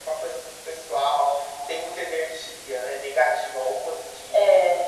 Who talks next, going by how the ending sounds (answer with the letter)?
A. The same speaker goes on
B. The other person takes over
A